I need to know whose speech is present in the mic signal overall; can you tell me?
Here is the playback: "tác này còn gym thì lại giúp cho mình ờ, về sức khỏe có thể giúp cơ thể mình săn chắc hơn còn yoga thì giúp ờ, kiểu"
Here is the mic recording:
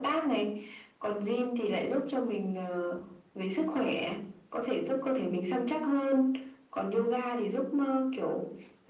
echo only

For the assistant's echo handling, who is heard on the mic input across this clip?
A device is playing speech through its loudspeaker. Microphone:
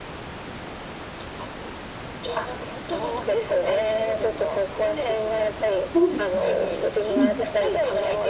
both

